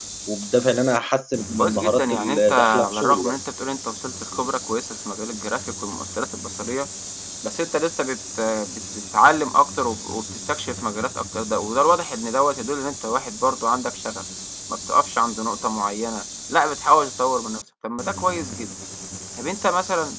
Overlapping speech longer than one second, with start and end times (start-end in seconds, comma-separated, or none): 1.6-3.4